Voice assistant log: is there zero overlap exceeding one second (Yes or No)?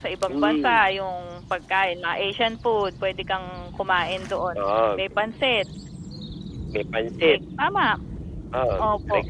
Yes